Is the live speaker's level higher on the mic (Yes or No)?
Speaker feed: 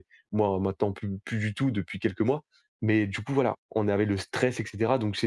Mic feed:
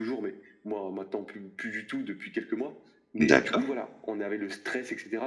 Yes